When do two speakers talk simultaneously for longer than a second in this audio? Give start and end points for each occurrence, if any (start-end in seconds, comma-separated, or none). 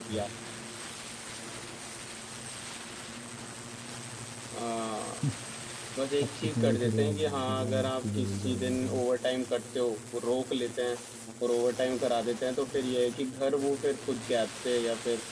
6.2-9.0